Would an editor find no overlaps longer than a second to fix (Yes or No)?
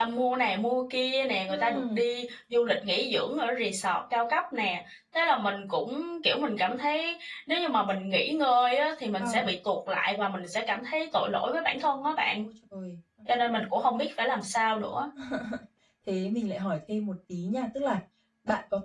Yes